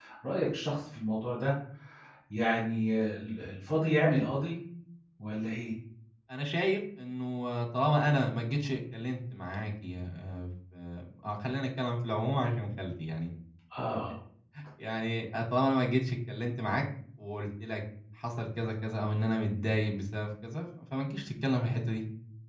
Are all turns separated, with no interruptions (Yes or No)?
Yes